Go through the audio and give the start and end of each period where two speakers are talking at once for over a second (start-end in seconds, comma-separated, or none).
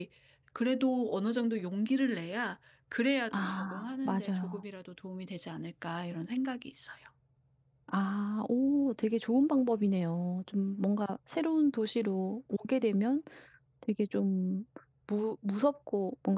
3.3-4.6